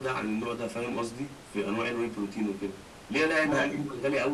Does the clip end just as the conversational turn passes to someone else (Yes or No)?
No